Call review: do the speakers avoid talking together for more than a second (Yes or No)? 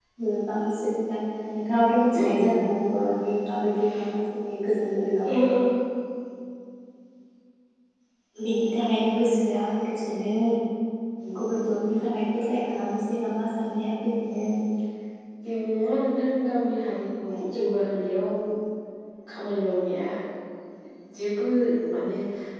Yes